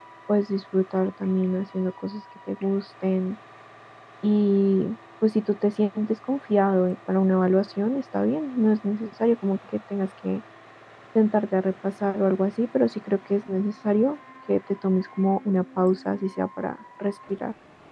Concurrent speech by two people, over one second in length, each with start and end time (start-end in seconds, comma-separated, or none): none